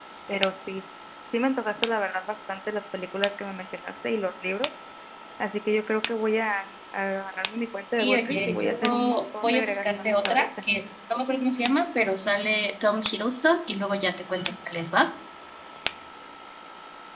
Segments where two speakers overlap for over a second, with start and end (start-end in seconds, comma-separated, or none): 8.0-10.5